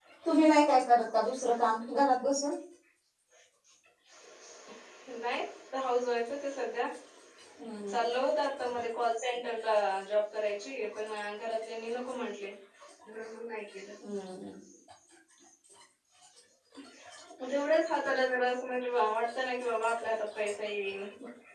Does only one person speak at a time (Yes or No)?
Yes